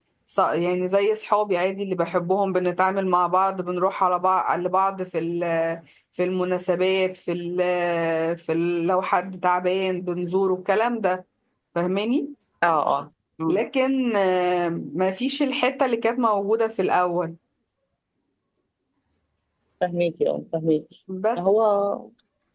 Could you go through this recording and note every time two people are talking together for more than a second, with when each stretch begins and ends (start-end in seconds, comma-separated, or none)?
none